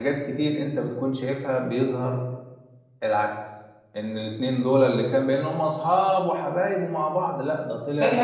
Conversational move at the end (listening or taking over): taking over